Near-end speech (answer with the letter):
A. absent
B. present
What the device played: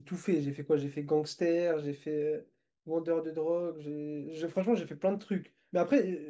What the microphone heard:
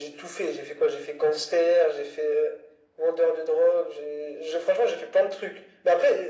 A